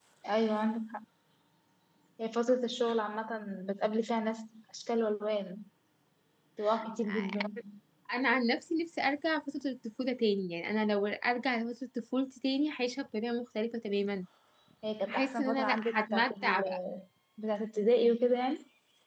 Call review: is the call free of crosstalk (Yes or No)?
No